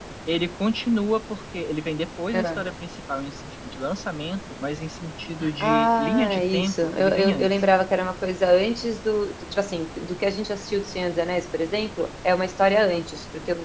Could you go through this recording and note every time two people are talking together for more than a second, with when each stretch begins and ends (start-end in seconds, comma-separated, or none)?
5.6-7.5